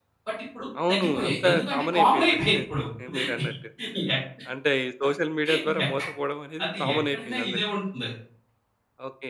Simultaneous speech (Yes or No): Yes